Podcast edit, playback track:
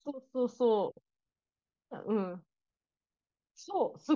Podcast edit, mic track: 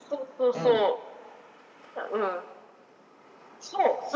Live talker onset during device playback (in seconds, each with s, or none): 0.5 s